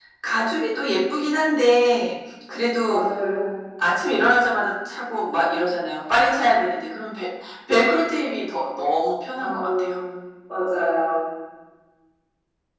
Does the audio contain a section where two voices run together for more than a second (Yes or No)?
No